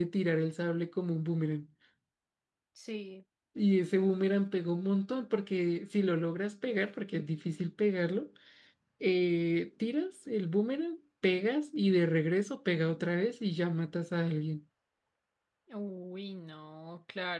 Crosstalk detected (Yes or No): No